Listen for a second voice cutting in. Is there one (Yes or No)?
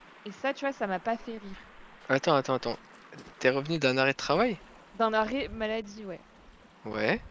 No